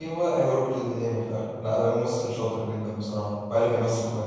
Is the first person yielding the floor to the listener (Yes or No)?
Yes